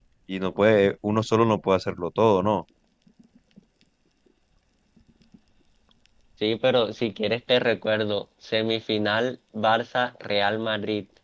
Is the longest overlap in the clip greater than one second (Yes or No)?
No